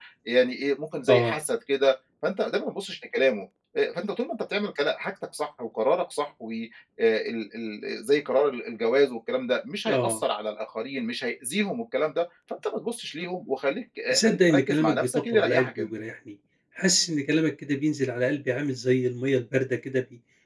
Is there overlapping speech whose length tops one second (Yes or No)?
Yes